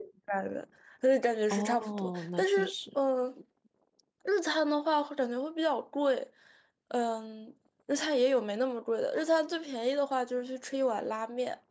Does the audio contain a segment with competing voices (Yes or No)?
Yes